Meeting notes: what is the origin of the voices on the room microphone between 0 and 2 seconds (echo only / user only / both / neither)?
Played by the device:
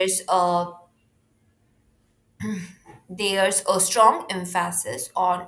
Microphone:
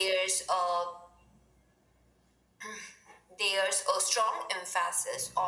echo only